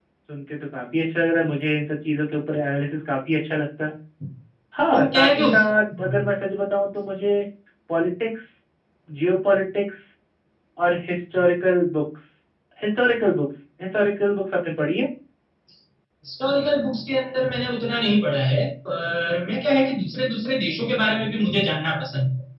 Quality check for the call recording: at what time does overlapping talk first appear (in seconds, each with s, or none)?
4.9 s